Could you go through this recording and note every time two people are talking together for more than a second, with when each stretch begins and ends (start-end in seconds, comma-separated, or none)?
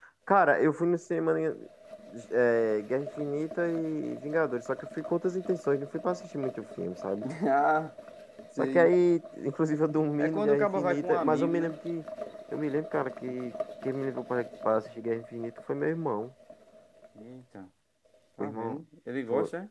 10.2-11.7